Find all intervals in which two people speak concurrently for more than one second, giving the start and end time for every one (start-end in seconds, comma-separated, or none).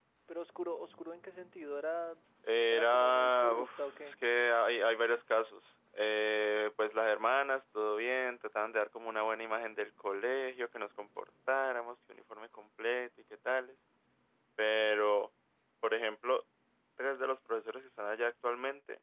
2.7-4.2